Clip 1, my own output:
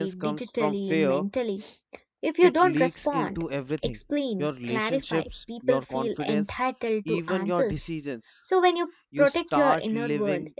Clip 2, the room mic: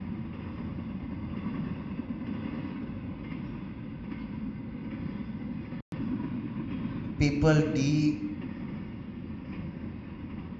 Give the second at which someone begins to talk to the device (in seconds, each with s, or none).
7.2 s